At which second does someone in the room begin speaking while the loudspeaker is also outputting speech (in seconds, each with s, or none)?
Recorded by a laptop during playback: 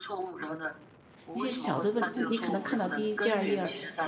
1.3 s